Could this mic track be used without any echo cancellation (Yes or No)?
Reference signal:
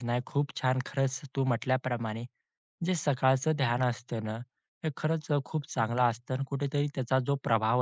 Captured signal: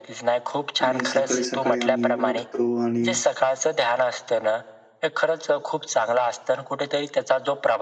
No